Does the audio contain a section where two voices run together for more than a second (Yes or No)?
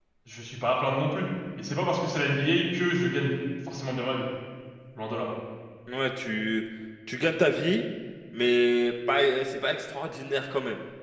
No